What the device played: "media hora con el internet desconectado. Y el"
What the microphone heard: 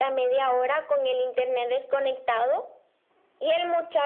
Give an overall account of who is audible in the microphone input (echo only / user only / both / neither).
echo only